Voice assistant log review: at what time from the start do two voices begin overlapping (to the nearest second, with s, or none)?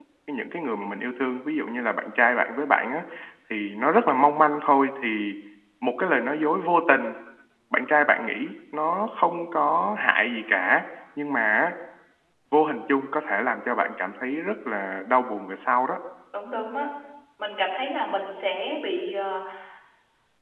none